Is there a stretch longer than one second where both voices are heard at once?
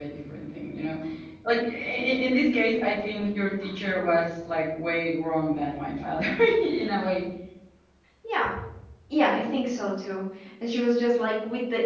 No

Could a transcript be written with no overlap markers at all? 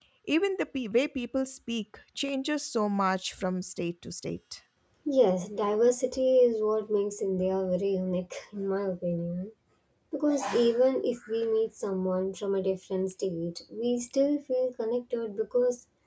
Yes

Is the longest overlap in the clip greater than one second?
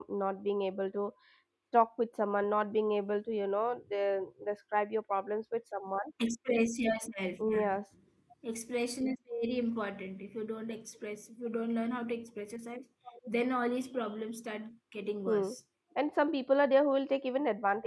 No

